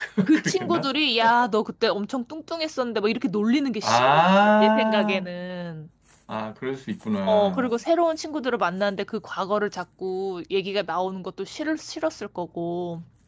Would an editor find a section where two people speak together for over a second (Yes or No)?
Yes